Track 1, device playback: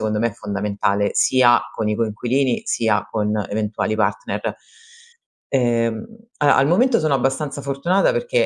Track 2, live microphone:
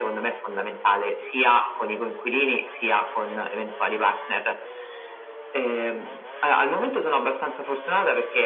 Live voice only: none

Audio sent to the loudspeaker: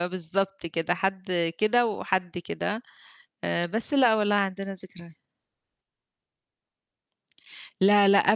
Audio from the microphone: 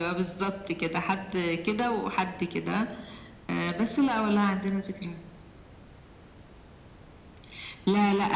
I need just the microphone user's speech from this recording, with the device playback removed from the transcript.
none

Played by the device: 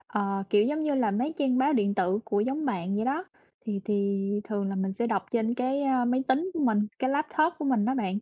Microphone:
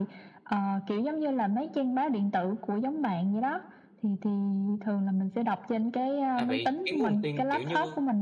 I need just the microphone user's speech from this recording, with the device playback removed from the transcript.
À, vậy cái nguồn tin, kiểu như,

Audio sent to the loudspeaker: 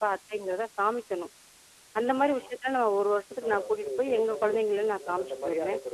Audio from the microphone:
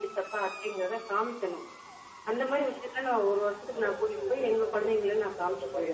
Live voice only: none

